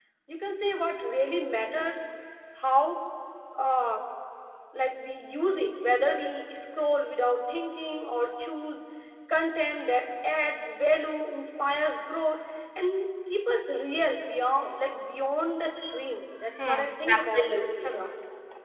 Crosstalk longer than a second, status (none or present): present